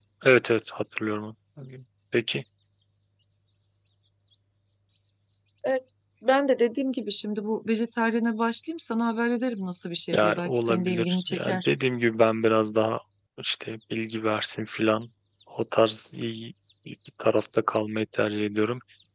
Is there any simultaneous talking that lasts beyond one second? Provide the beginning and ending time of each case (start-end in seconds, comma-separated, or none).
10.2-11.7